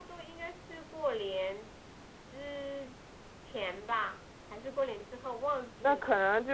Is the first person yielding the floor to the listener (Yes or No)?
Yes